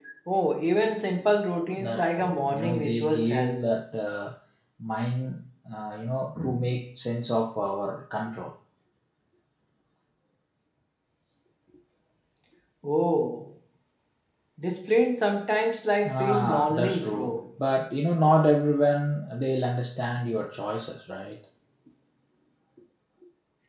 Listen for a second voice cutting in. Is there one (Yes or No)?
Yes